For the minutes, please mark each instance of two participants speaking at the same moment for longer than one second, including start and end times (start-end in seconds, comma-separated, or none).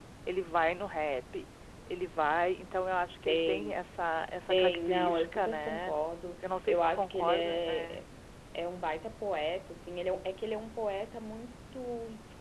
4.5-5.9, 6.4-8.0